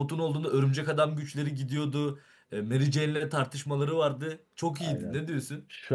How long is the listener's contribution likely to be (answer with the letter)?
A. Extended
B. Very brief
A